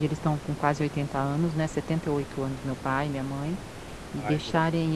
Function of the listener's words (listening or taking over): listening